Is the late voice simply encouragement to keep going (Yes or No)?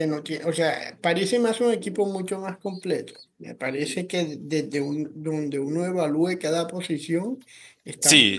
No